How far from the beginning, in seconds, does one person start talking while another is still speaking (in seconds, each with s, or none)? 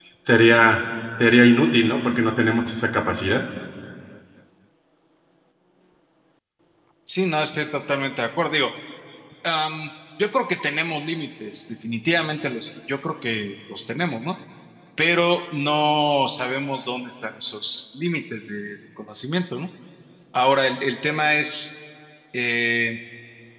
none